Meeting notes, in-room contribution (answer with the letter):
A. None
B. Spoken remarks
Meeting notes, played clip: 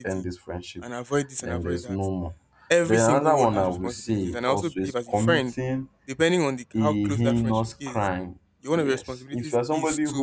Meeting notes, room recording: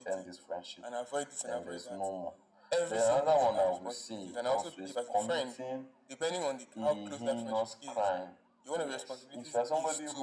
A